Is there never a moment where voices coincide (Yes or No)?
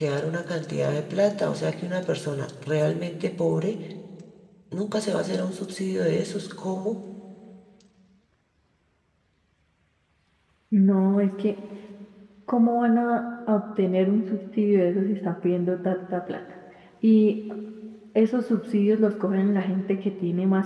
Yes